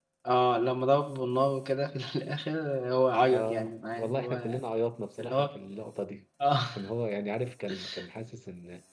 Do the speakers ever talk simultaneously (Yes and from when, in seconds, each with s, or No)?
Yes, from 3.3 s